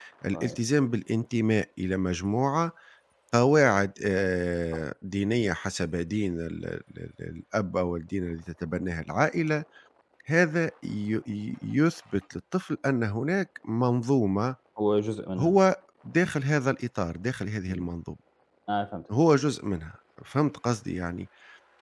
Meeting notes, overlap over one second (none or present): none